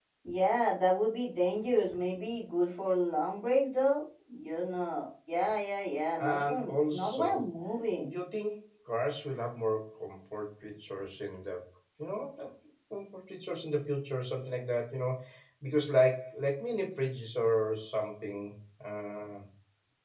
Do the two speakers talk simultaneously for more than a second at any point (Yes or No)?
Yes